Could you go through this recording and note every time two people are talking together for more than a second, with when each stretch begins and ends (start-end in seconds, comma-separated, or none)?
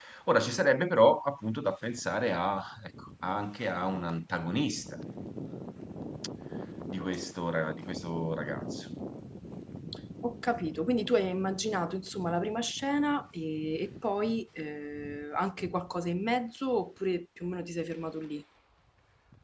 none